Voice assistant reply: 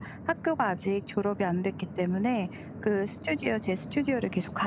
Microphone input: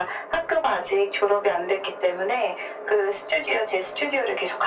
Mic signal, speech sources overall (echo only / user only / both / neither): echo only